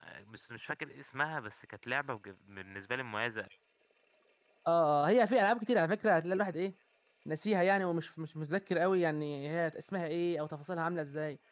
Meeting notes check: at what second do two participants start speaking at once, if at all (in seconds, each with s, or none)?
none